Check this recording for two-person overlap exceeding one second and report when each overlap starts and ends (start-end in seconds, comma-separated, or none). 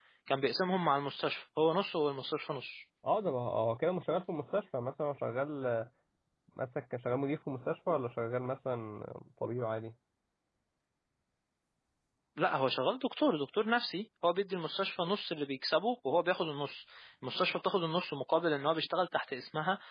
none